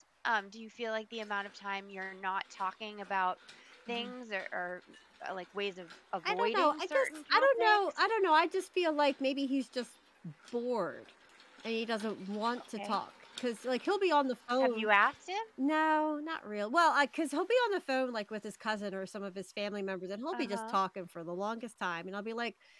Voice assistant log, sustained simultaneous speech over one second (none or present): present